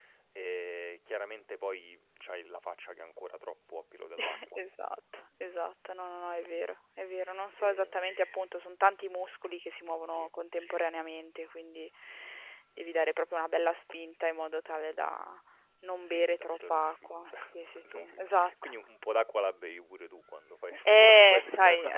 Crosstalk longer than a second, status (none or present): present